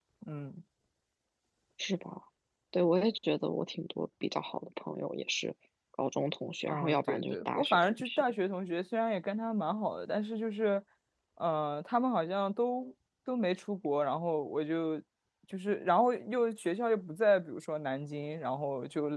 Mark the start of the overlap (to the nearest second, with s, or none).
7 s